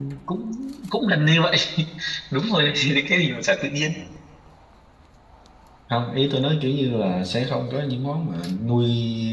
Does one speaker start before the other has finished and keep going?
No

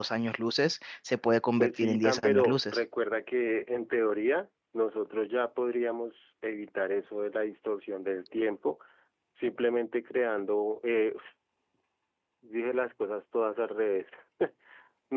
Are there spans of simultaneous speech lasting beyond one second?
Yes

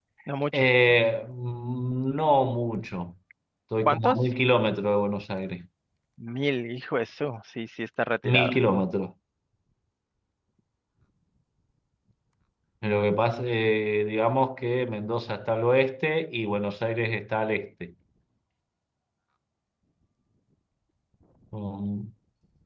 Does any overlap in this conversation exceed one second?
No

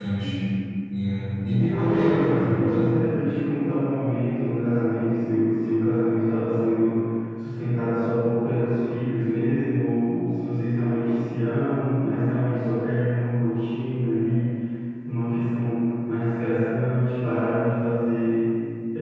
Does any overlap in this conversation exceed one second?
Yes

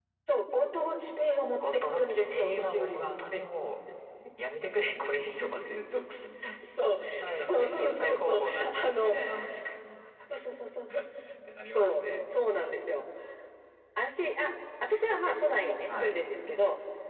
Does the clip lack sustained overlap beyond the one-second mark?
No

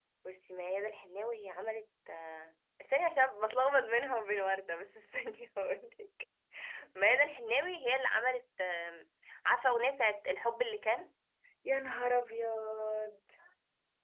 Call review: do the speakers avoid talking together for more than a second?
Yes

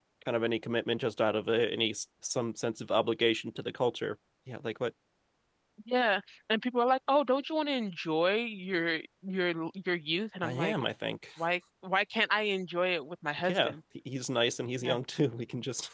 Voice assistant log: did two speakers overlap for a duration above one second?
No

